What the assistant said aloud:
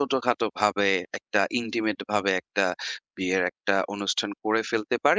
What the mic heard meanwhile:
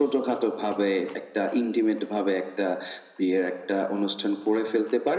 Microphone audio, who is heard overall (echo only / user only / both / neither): echo only